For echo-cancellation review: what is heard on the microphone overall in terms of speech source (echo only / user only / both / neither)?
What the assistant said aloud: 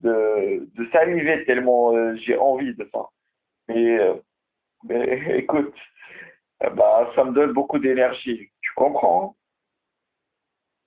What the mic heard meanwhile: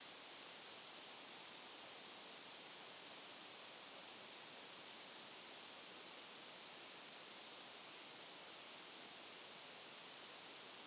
neither